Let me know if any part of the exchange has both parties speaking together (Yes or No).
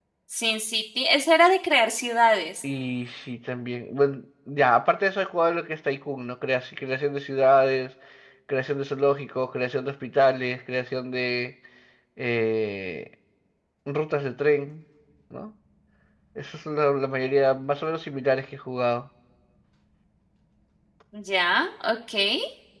No